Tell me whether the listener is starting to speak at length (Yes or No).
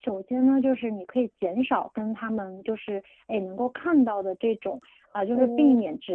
No